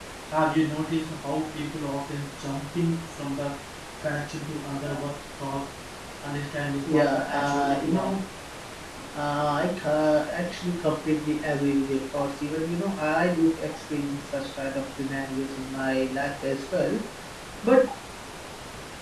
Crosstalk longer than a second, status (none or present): present